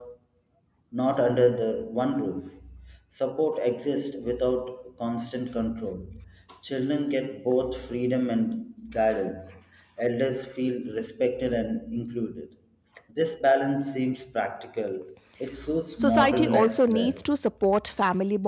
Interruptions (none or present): present